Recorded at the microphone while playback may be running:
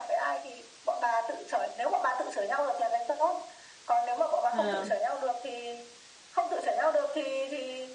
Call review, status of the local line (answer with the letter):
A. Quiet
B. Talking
B